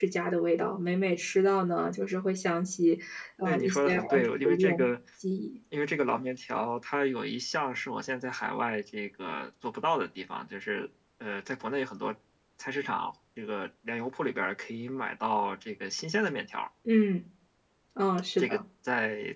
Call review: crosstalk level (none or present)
present